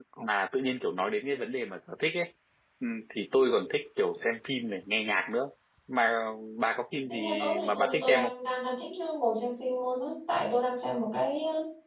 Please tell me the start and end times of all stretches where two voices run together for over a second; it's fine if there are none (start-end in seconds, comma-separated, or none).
7.1-8.3